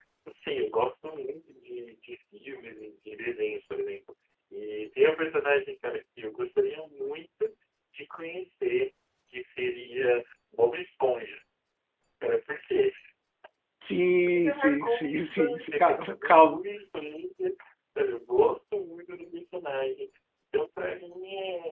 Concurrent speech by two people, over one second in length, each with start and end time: 14.4-16.7

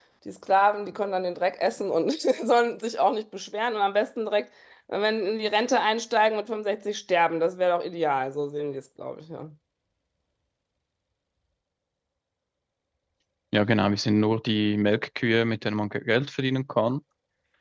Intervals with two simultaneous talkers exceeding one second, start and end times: none

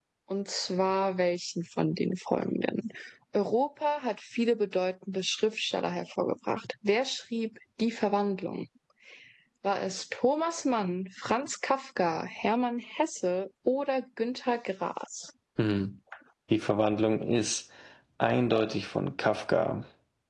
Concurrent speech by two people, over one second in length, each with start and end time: none

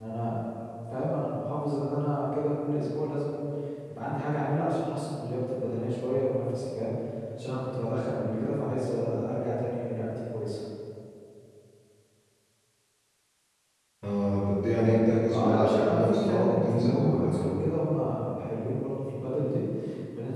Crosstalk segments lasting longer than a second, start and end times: 15.3-17.5

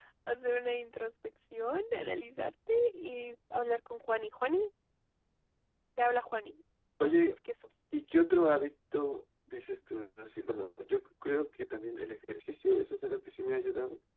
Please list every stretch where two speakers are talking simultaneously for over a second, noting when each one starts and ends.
none

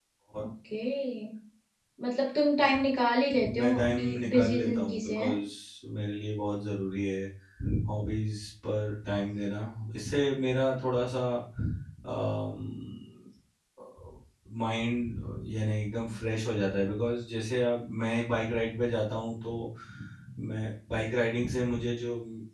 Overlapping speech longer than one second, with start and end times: 3.6-5.3

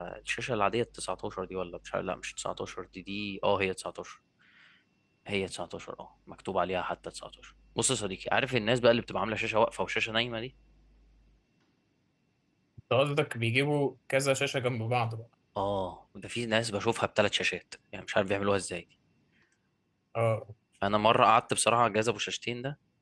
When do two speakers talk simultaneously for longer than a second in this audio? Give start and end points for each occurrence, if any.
none

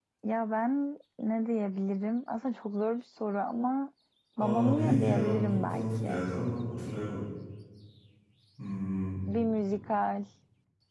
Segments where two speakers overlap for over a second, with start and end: 4.4-6.2

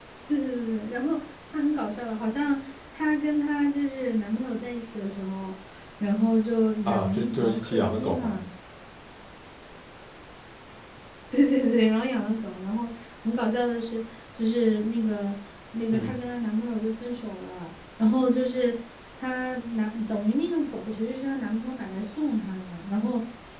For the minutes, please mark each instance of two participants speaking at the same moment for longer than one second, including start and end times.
6.8-8.4

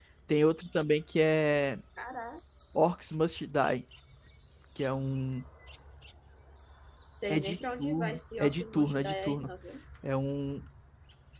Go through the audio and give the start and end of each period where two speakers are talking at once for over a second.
7.3-9.5

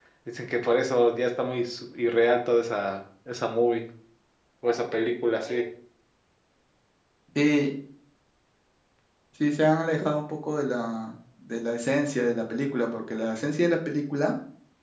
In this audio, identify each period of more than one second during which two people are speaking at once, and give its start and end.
none

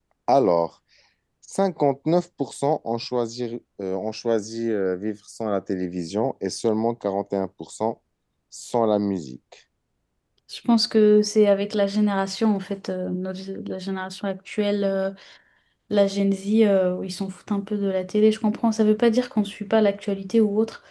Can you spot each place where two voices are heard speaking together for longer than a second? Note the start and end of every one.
none

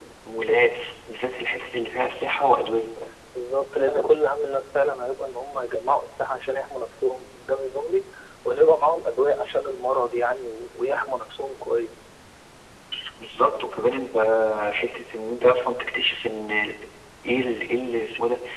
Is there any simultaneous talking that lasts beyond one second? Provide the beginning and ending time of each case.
none

